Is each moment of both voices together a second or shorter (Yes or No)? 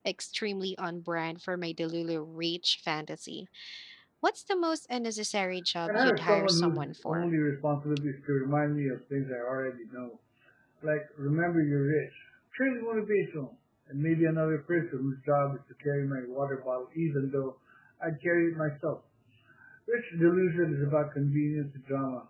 No